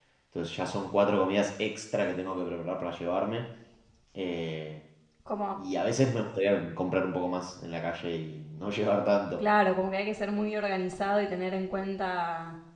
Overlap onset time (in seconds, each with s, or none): none